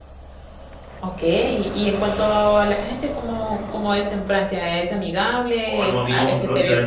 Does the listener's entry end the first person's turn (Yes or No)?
Yes